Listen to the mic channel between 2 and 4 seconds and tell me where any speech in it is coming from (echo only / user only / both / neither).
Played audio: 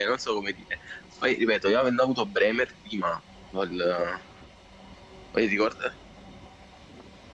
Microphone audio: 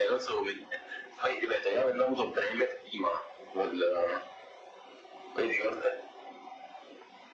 echo only